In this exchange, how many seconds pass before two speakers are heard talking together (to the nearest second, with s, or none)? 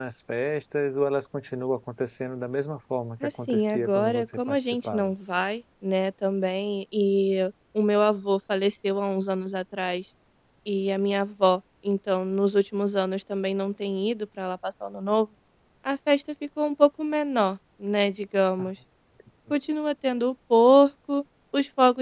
3 s